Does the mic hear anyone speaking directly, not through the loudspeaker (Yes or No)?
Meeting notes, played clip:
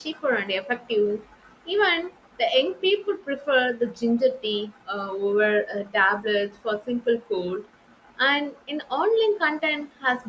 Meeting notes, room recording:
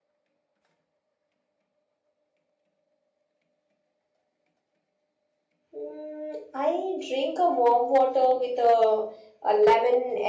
Yes